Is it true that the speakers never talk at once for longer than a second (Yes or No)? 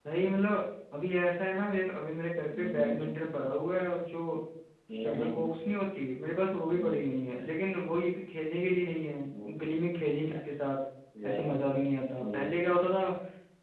Yes